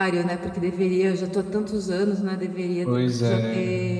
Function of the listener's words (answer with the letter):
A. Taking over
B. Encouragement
B